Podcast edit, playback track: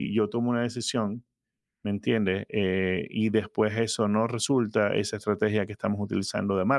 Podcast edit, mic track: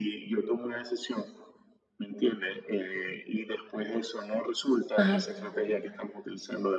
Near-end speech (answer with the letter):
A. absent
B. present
B